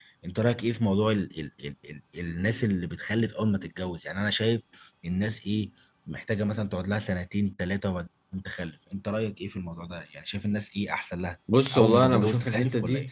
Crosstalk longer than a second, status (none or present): present